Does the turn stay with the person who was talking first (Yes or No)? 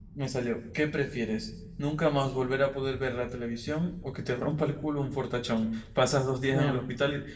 Yes